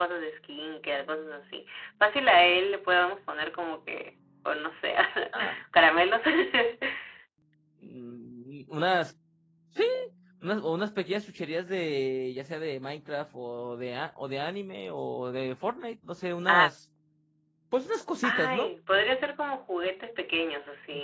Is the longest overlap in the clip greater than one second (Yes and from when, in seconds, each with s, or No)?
No